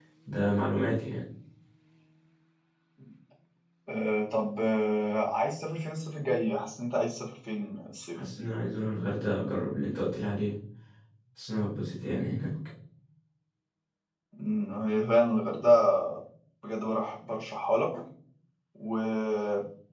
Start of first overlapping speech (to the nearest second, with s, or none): none